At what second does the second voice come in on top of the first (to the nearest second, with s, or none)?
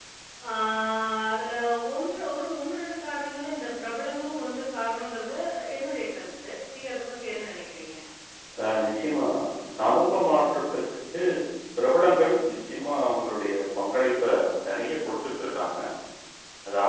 none